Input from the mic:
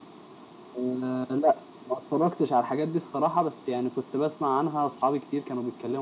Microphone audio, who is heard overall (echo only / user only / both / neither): echo only